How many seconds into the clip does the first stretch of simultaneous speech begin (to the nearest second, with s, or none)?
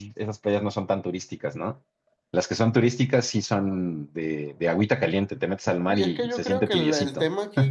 6 s